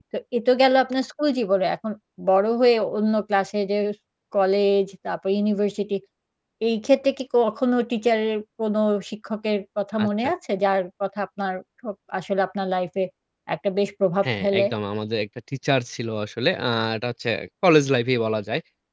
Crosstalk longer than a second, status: none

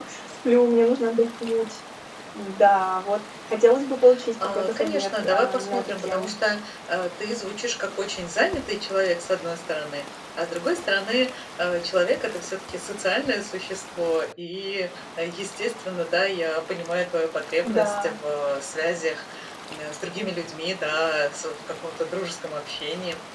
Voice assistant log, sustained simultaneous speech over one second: present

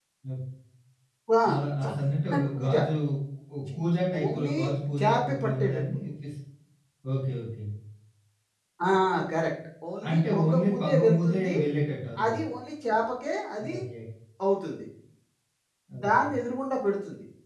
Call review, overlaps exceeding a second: present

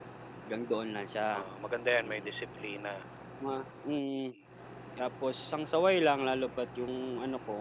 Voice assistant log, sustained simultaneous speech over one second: none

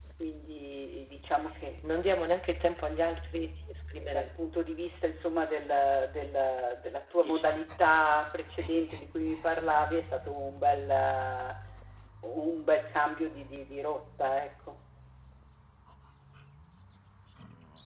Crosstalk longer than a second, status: none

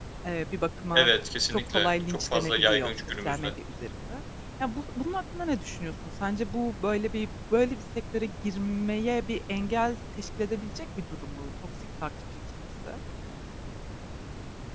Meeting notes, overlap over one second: present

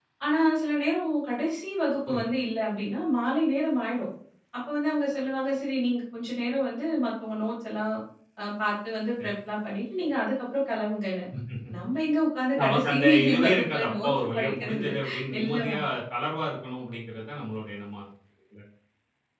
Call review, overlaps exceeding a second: present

